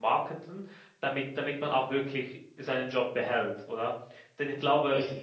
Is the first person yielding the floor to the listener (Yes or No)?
No